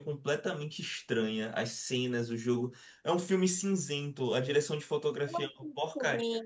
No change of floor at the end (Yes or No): No